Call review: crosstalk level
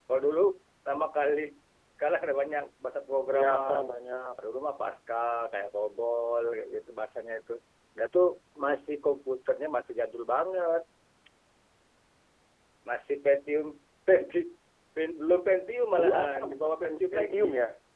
present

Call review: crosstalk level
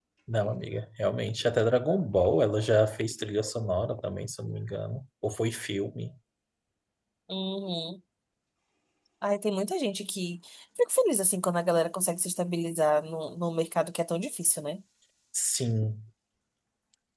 none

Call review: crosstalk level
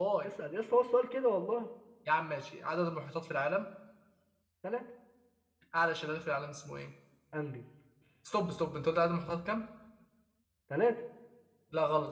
none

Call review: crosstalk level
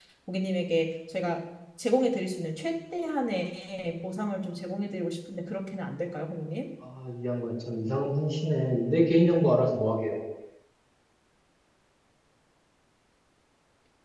none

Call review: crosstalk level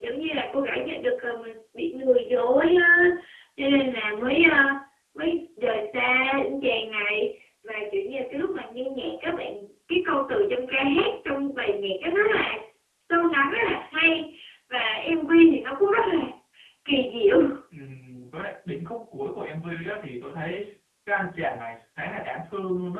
none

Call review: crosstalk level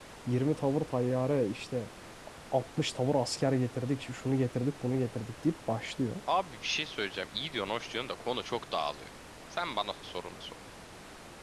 none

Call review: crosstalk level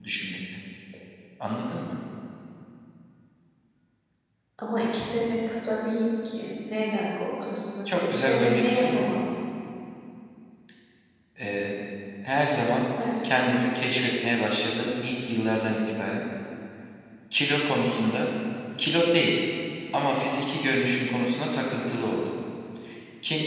present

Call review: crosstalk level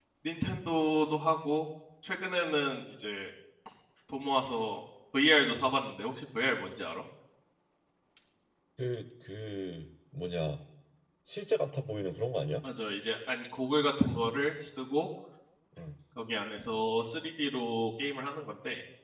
none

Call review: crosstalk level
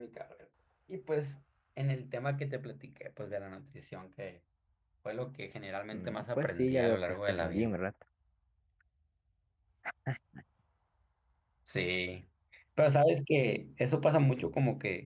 present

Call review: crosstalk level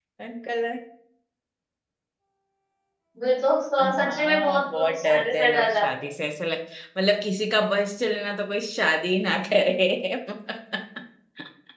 present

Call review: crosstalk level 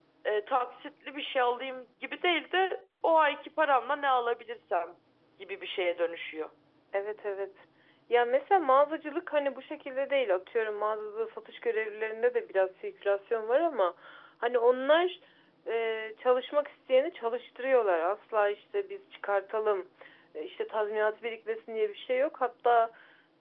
none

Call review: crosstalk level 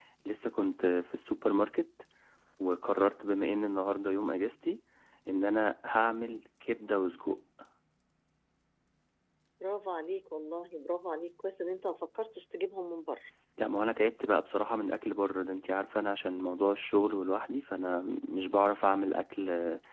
none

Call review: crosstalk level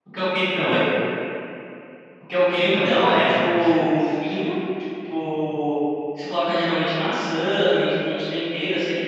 present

